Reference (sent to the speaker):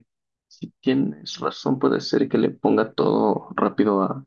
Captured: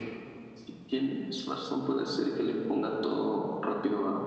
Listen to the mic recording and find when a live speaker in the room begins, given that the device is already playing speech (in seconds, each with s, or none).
none